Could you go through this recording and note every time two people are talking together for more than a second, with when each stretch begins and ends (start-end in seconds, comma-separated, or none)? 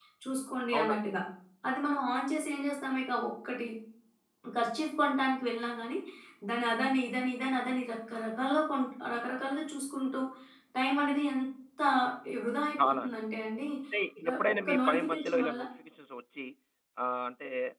14.2-15.6